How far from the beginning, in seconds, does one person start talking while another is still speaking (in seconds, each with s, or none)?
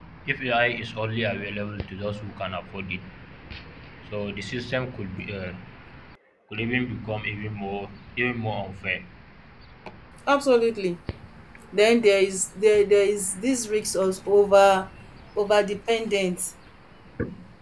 none